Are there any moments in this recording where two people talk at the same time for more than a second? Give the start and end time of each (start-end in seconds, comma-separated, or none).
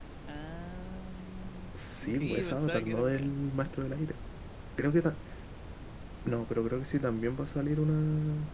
2.1-3.3